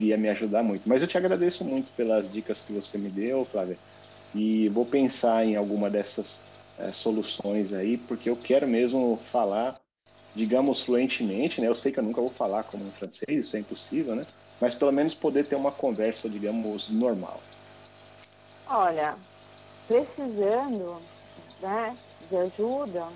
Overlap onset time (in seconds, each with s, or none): none